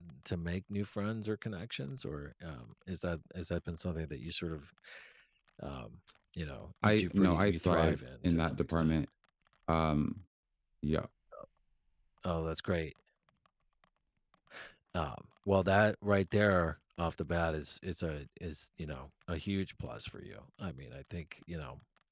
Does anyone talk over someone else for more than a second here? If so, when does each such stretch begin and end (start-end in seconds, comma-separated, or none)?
6.8-9.0